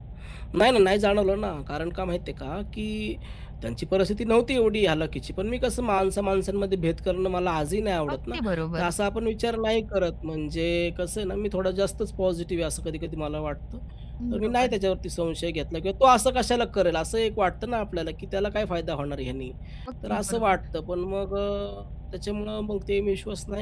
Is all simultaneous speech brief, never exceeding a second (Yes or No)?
Yes